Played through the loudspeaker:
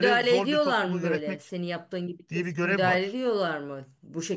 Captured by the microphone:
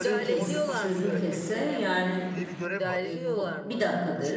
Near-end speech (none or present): present